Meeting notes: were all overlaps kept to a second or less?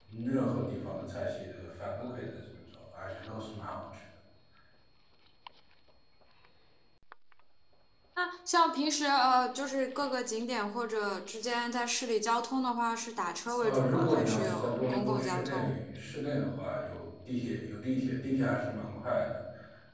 No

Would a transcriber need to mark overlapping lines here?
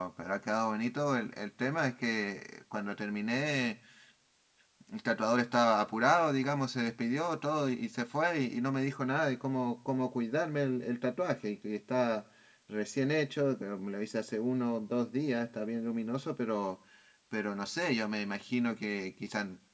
No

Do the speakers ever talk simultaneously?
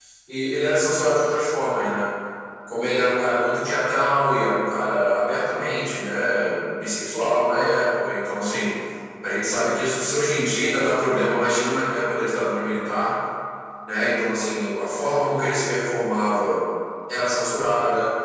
No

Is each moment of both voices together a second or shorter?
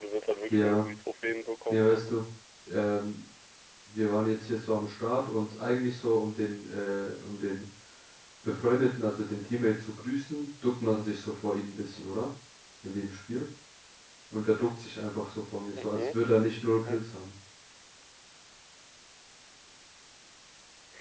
Yes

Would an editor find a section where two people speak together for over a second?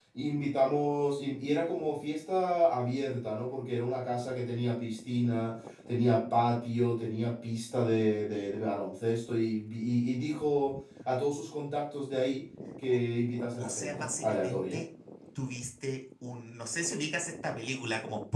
Yes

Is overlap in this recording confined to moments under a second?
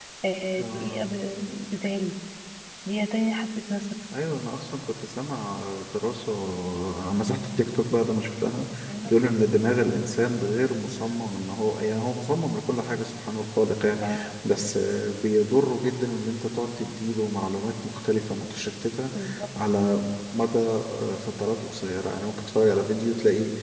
Yes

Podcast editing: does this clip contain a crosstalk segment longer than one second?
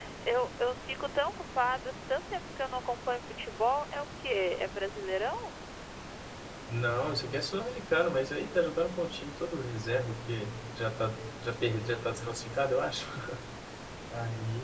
No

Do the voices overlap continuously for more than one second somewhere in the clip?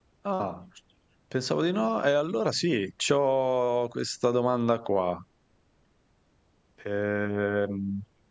No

